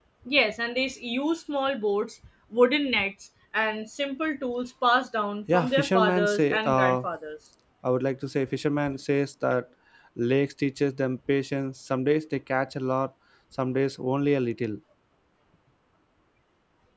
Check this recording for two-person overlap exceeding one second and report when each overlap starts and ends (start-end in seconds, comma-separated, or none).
5.5-7.0